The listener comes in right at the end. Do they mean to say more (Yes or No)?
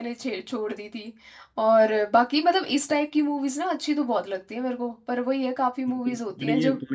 Yes